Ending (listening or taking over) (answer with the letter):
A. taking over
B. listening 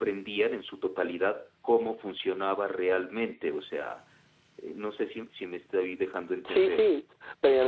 A